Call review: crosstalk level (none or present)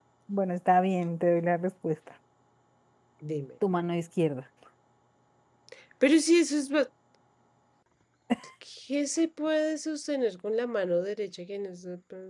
none